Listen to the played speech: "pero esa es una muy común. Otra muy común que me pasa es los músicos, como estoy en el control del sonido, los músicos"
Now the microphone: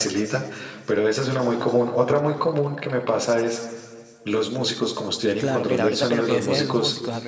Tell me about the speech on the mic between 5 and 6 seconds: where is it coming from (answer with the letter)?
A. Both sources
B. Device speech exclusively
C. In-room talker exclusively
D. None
A